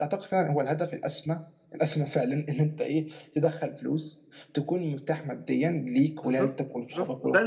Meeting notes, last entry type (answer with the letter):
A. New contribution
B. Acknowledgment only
A